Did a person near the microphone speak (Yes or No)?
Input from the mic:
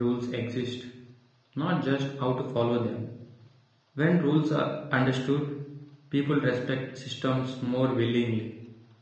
Yes